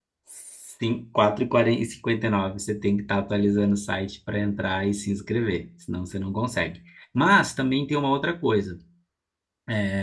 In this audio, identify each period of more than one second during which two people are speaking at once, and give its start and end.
none

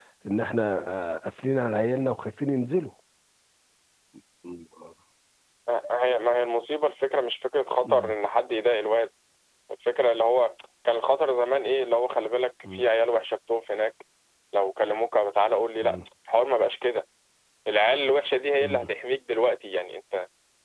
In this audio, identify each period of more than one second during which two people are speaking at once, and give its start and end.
none

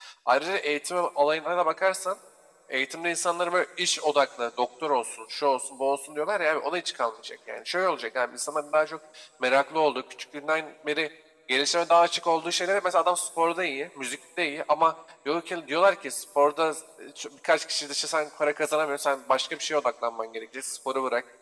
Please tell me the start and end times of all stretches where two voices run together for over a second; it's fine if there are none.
none

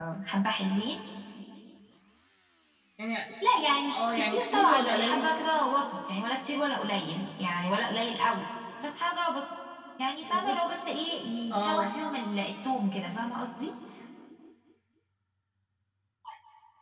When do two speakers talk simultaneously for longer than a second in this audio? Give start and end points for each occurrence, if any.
3.9-5.3

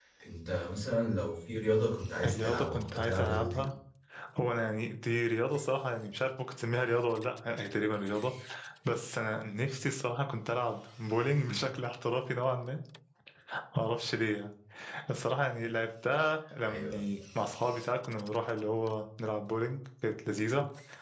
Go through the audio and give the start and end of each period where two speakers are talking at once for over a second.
2.2-3.7

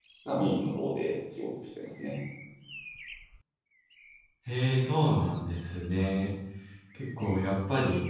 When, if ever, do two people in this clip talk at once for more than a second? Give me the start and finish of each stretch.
none

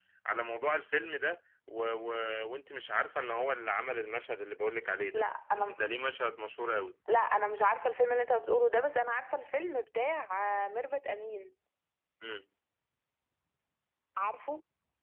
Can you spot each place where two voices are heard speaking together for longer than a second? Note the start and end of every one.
none

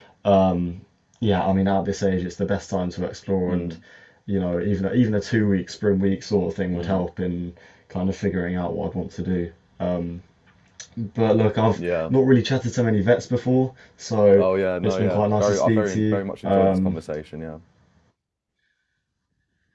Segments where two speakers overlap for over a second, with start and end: 14.8-16.2

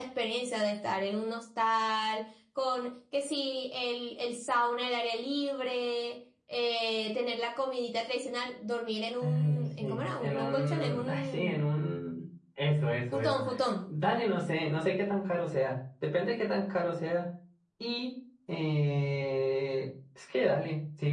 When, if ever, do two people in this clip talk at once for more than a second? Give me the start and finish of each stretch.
9.2-11.7

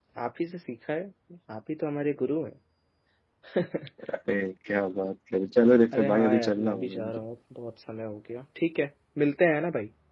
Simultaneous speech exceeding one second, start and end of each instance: 5.9-7.2

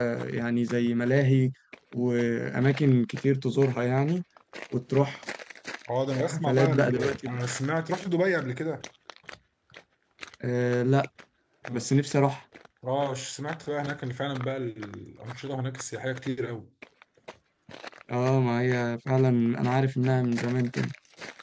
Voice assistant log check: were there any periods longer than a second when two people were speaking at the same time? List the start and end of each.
6.2-7.4

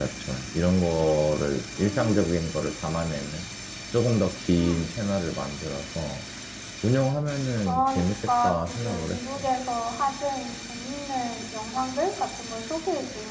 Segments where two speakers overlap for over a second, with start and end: 7.7-9.5

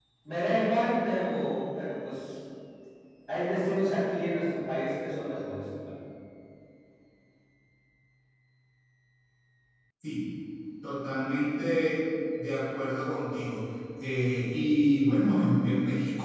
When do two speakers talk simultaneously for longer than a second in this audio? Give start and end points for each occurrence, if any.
none

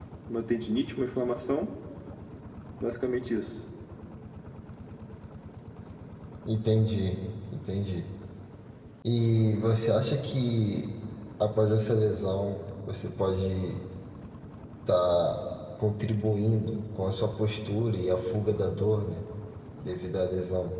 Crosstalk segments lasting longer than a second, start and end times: none

